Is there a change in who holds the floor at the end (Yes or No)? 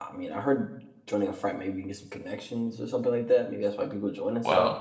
Yes